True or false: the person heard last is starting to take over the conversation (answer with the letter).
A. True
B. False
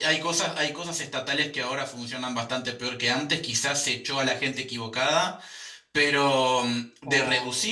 B